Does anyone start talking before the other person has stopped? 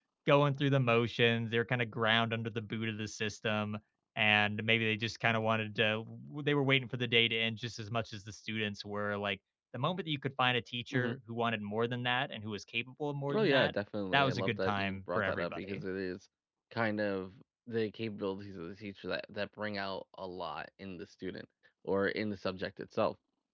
Yes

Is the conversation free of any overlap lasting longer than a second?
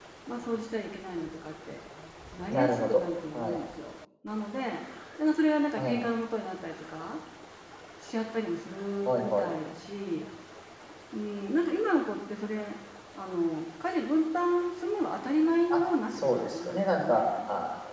No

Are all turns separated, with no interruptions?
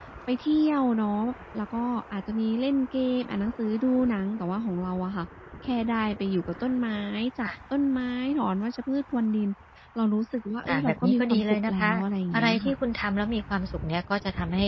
No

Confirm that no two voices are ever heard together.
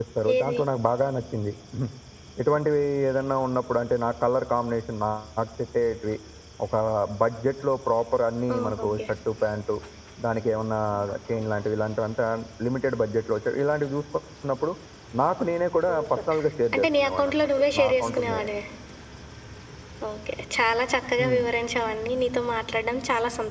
No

